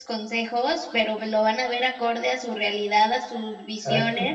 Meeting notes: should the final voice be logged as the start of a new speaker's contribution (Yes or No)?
No